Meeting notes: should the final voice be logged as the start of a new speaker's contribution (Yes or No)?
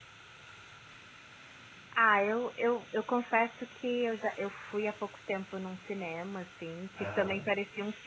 No